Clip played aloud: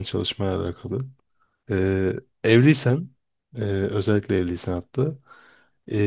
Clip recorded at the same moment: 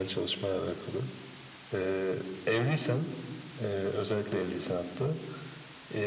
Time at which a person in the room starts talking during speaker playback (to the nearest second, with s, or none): none